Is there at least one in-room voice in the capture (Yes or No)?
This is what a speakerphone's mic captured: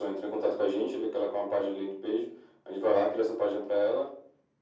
No